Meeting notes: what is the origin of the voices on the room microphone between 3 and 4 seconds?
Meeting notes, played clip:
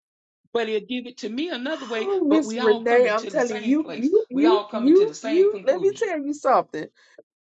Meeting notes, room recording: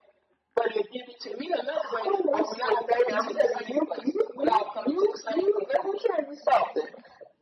both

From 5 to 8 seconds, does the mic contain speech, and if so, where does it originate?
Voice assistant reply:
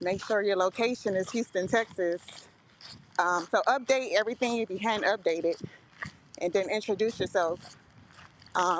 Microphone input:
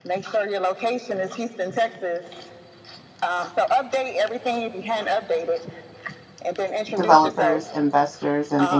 both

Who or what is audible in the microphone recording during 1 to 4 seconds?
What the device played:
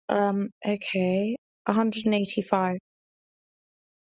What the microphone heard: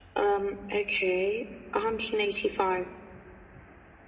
echo only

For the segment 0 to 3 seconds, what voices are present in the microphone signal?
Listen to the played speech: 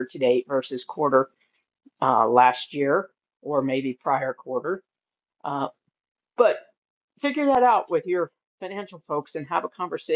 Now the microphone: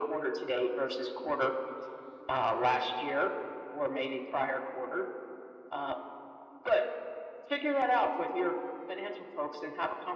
echo only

